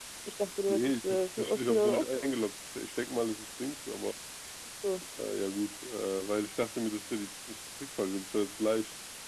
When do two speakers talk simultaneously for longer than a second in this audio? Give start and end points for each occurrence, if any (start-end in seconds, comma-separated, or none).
0.7-2.3